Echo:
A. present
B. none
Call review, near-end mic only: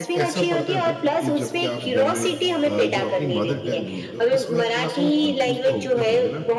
A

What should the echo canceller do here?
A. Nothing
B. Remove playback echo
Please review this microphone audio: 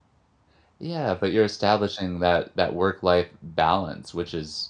A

